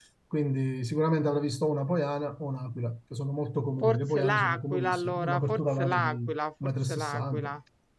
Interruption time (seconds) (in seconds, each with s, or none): 3.8 s